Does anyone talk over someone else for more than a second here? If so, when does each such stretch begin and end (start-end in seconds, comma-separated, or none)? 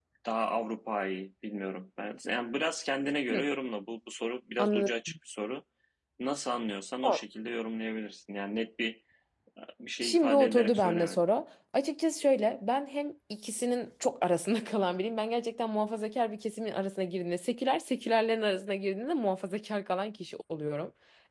10.0-11.2